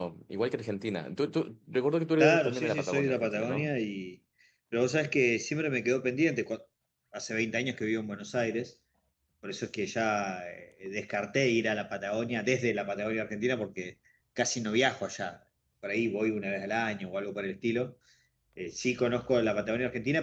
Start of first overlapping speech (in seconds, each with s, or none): 2.2 s